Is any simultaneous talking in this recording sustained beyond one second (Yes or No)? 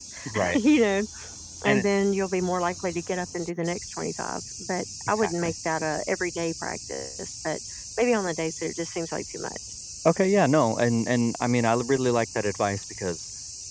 No